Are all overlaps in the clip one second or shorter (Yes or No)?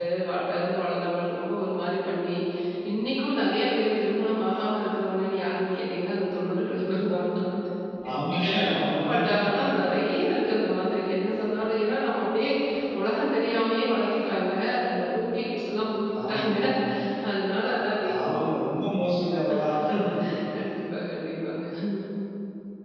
Yes